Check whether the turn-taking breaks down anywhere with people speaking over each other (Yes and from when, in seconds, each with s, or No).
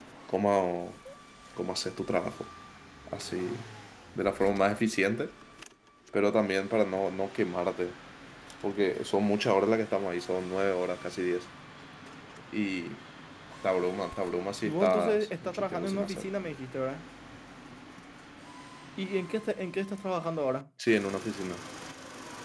Yes, from 14.6 s